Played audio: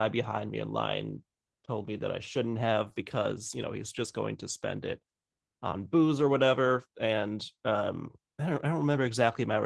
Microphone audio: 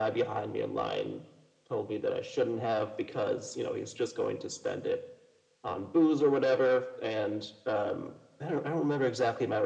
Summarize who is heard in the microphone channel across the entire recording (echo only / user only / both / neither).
echo only